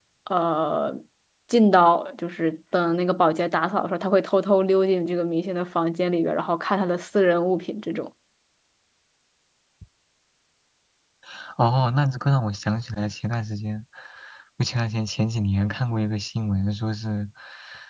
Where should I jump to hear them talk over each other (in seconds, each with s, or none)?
none